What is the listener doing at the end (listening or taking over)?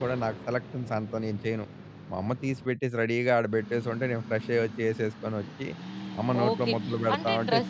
taking over